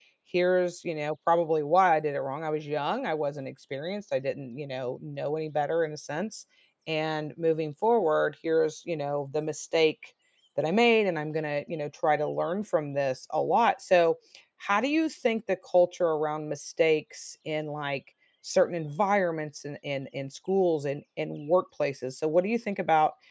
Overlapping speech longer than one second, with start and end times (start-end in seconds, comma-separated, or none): none